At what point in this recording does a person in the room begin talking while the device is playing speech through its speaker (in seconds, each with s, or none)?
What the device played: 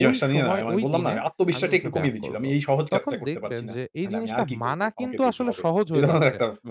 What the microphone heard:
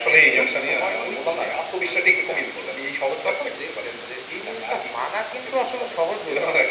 none